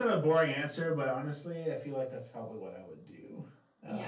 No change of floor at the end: No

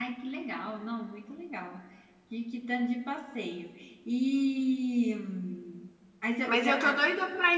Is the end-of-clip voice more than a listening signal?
Yes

